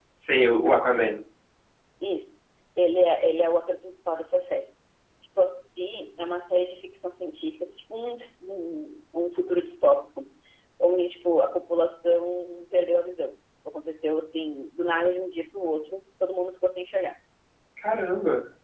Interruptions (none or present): none